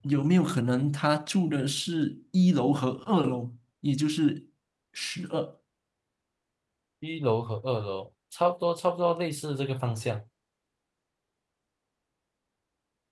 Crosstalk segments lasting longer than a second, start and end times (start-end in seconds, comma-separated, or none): none